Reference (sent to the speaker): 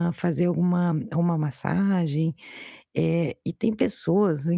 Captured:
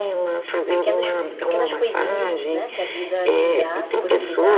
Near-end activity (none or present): present